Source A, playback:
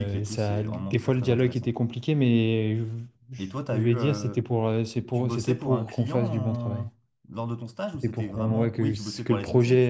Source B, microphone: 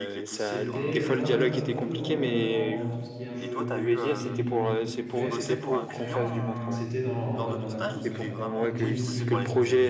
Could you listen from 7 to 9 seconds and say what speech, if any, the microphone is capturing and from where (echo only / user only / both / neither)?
both